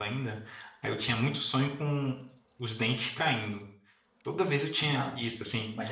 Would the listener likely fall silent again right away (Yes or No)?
No